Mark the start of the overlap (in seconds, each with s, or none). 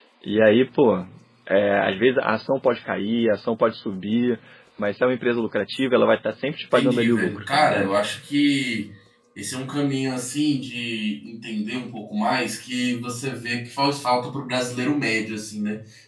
6.7 s